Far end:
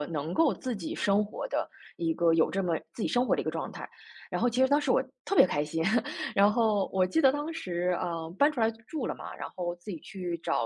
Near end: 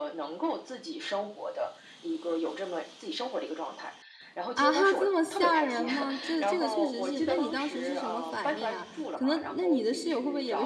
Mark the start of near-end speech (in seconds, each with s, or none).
4.5 s